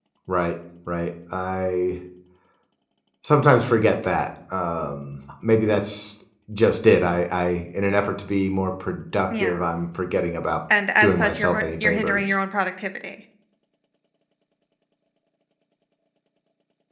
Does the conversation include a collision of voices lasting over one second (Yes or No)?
Yes